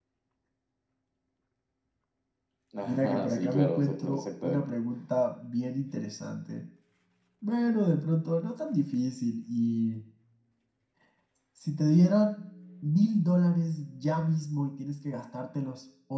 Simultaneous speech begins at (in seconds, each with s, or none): 2.9 s